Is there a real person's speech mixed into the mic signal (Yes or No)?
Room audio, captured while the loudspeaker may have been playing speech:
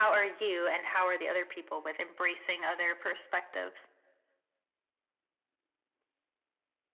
No